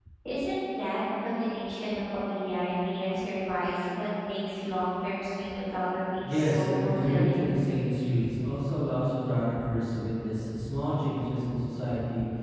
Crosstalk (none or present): present